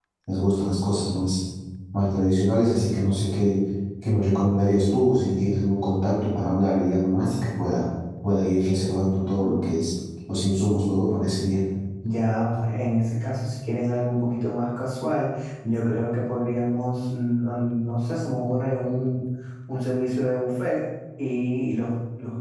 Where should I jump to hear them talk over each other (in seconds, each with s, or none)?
none